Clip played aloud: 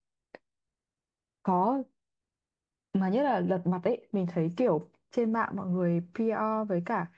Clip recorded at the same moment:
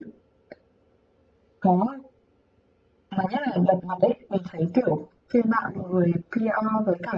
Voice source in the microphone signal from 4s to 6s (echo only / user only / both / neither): echo only